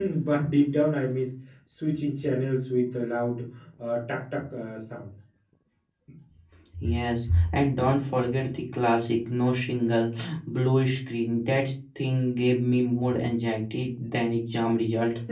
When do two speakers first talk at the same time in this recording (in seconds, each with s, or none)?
none